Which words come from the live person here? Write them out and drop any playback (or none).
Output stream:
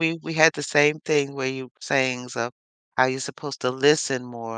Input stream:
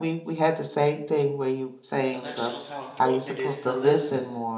So that shows how important it is to listen.